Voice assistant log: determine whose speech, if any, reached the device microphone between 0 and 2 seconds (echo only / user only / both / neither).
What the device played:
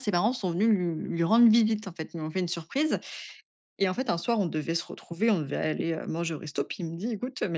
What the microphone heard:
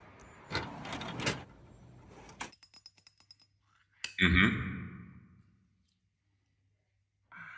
neither